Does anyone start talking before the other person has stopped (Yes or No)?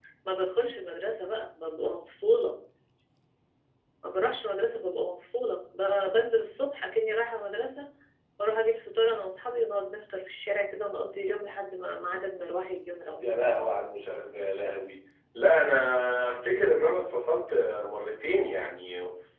No